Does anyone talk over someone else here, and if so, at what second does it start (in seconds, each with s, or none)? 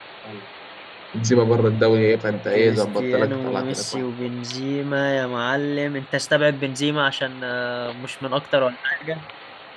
2.5 s